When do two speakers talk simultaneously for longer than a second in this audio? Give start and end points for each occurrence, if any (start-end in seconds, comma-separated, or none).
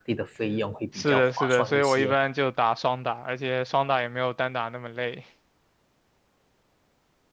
0.9-2.1